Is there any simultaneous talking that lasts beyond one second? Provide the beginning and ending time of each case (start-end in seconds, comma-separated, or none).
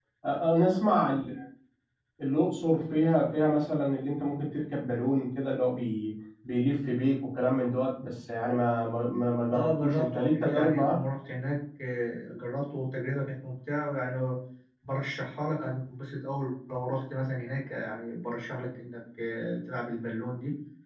9.5-11.0